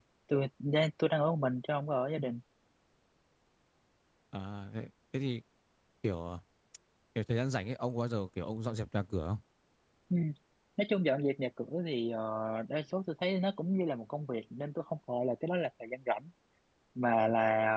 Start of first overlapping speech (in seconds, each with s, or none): none